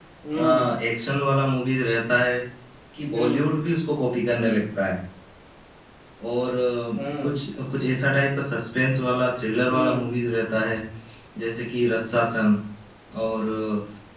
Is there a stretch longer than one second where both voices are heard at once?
No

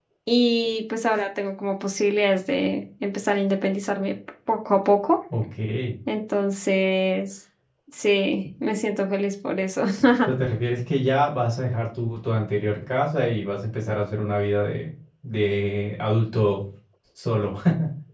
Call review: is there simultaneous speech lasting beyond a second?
No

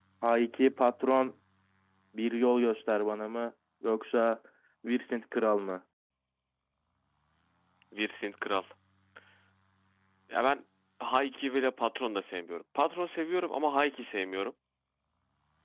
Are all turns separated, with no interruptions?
Yes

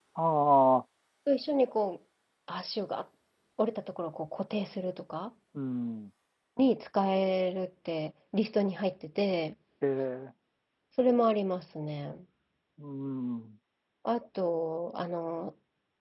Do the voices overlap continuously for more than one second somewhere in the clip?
No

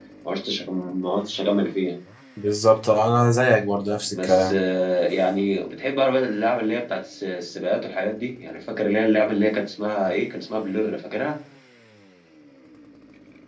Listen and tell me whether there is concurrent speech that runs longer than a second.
No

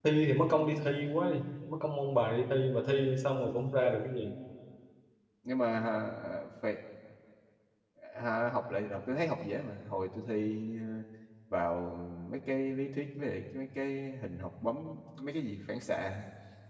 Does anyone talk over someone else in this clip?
No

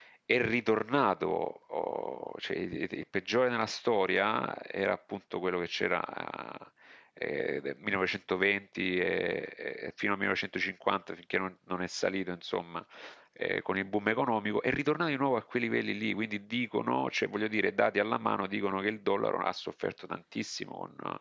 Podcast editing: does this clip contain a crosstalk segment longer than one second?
No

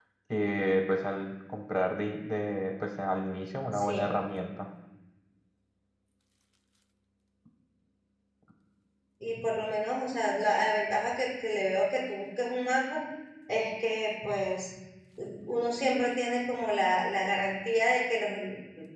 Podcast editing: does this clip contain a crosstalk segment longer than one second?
No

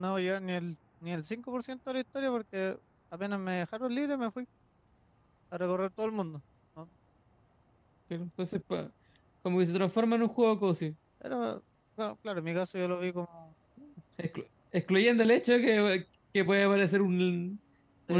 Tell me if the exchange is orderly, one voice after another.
Yes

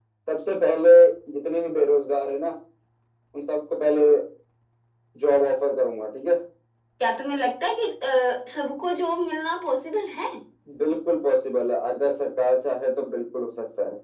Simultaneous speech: No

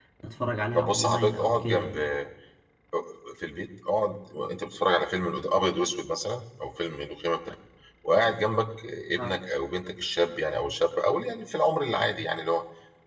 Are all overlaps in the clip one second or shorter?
No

